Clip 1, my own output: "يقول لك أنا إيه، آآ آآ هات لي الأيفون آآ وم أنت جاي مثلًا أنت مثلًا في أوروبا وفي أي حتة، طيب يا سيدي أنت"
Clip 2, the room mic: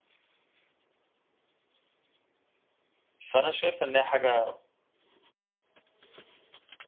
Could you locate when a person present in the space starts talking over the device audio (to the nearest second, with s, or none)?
3 s